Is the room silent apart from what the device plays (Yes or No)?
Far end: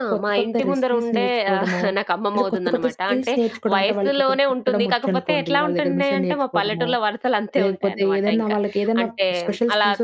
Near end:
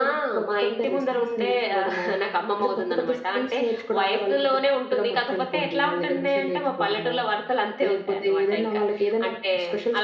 Yes